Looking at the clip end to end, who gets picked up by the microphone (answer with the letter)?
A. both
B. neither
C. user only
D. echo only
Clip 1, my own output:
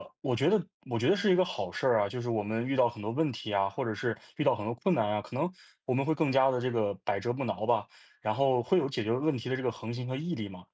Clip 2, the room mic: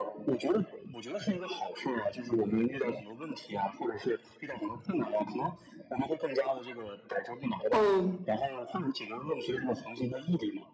A